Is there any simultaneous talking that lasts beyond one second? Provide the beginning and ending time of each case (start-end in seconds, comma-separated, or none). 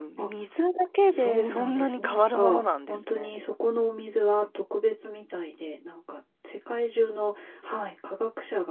1.1-3.4